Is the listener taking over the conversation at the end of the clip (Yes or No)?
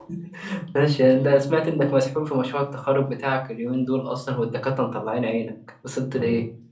Yes